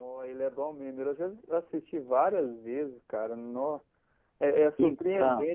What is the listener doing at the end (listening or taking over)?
listening